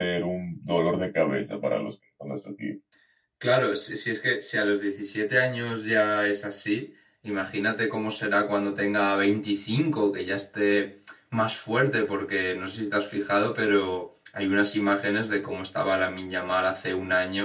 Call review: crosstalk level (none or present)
none